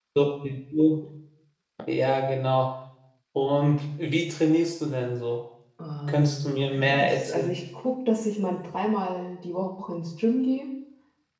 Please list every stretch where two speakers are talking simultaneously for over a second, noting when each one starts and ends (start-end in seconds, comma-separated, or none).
6.1-7.6